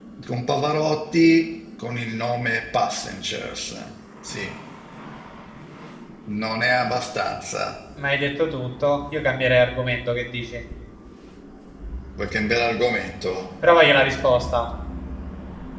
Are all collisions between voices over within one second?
Yes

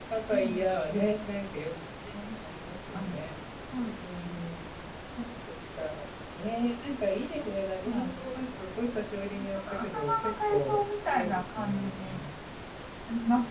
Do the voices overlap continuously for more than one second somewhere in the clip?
Yes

